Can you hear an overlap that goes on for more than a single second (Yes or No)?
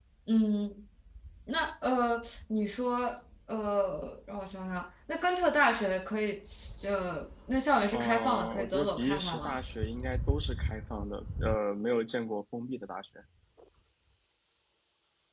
Yes